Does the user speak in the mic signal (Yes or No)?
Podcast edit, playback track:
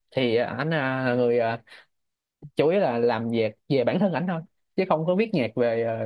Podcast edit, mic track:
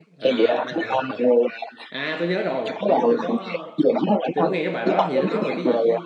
Yes